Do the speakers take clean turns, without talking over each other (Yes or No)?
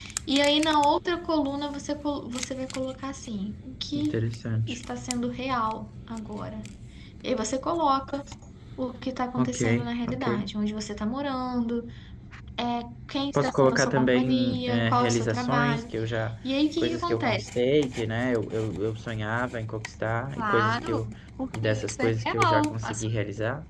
No